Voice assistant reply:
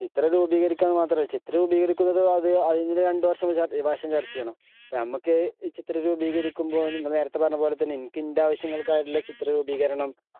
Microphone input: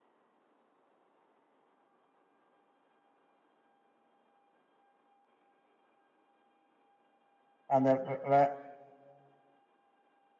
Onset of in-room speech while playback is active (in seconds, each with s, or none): 7.8 s